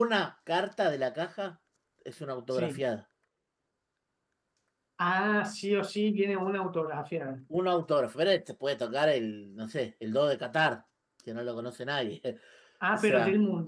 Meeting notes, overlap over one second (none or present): none